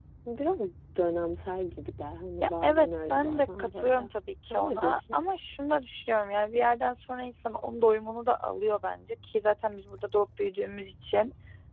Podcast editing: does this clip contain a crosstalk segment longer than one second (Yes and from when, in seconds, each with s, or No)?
Yes, from 2.4 s